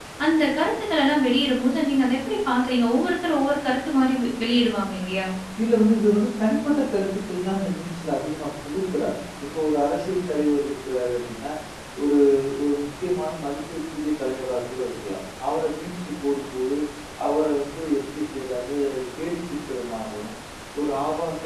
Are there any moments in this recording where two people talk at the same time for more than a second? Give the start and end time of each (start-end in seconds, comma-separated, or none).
none